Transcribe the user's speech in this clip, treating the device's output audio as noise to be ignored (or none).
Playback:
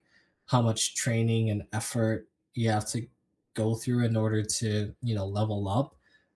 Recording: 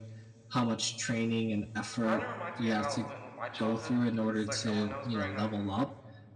Kind of reminds me of how it went with my childhood because, like, when I was growing up,